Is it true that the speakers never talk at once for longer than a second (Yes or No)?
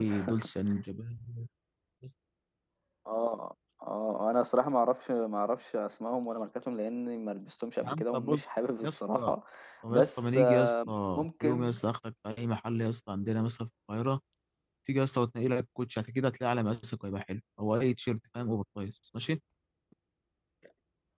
No